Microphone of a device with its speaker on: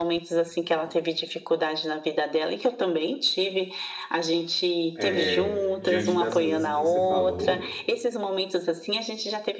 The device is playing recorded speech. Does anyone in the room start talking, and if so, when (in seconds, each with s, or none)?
4.9 s